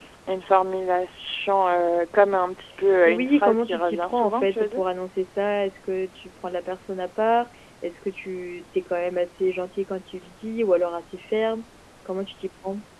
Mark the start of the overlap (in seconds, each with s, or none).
3.0 s